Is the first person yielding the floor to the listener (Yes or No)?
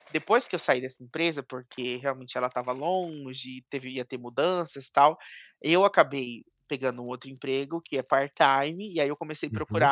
No